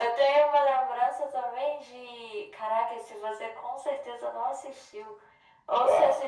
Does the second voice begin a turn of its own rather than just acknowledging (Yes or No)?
No